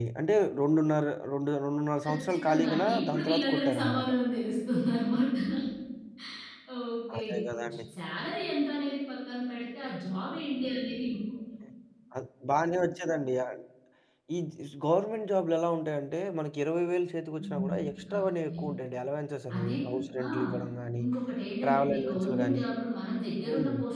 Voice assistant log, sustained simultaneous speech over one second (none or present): present